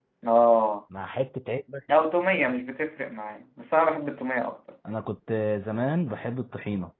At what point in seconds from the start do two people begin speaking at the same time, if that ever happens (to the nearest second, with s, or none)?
none